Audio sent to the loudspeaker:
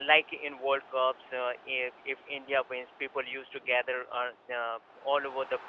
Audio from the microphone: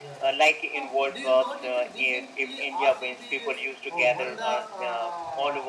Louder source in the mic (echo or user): echo